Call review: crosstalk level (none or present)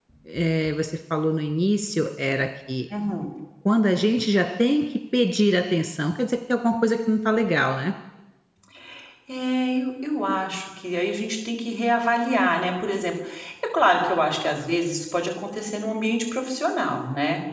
none